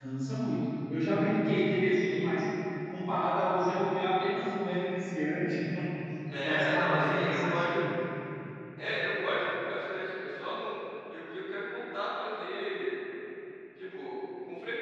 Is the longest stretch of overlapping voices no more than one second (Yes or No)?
No